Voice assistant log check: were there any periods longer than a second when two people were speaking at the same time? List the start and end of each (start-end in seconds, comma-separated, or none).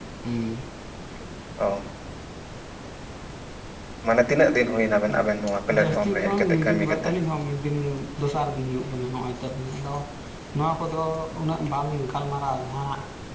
5.8-7.1